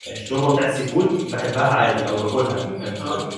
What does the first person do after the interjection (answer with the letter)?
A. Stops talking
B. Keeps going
B